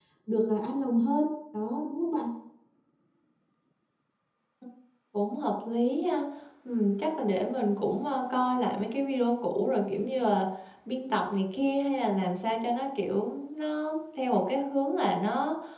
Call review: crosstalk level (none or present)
none